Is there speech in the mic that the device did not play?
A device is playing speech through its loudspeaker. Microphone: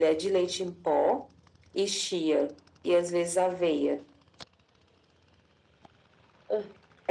No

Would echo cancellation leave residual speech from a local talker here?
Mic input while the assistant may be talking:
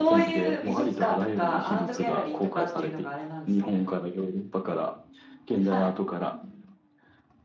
Yes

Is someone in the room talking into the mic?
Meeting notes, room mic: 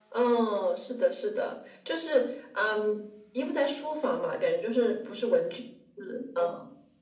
No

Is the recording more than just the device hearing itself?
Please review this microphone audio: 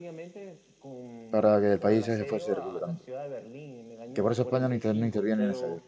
Yes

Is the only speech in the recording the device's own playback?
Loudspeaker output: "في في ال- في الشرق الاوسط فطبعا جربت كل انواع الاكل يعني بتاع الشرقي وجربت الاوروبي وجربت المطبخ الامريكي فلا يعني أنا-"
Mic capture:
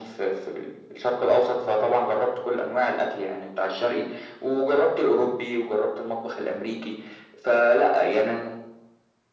Yes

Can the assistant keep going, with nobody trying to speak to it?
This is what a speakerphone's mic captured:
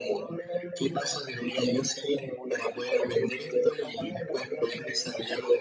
Yes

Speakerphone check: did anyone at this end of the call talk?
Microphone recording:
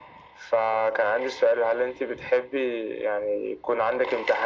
No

